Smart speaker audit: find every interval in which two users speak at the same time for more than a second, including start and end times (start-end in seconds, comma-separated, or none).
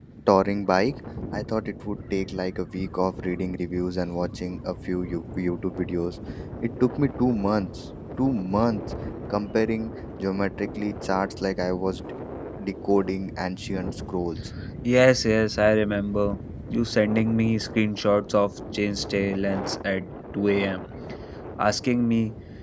none